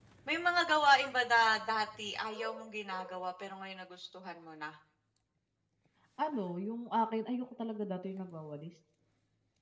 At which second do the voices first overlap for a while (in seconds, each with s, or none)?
none